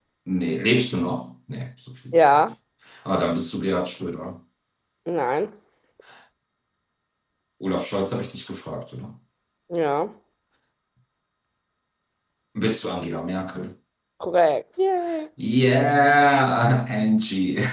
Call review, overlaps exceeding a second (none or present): none